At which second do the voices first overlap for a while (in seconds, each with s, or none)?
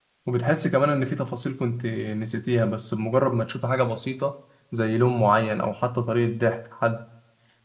none